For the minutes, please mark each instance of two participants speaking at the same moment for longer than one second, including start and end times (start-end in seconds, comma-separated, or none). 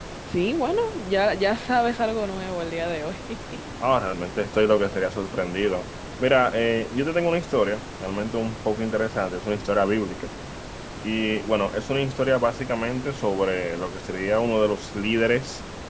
none